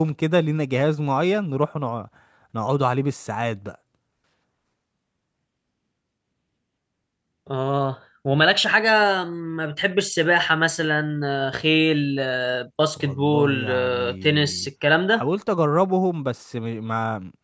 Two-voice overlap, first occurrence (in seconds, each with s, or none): 13.0 s